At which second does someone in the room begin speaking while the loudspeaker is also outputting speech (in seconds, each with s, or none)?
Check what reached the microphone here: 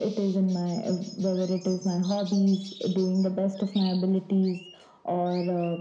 none